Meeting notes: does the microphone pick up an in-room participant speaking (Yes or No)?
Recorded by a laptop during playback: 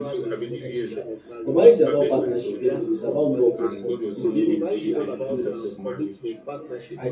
Yes